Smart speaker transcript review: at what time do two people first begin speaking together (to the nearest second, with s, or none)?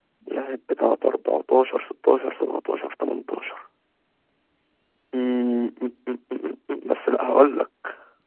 none